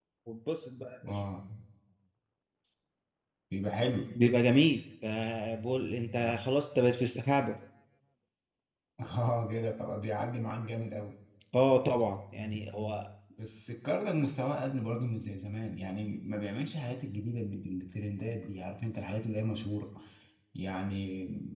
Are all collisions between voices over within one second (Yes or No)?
Yes